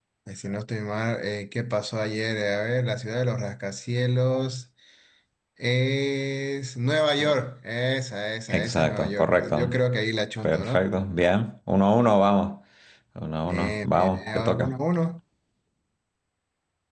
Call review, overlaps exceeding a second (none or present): present